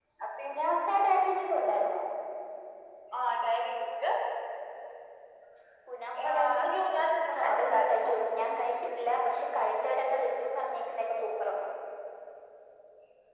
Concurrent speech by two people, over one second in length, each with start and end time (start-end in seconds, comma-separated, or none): 6.2-8.1